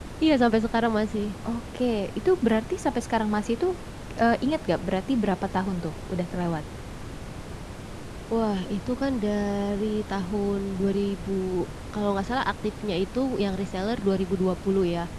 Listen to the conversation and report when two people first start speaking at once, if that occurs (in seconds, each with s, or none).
none